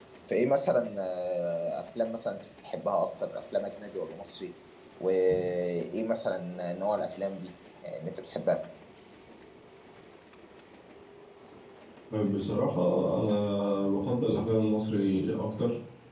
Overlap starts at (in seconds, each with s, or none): none